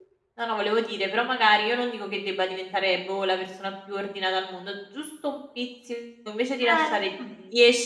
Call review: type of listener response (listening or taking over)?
listening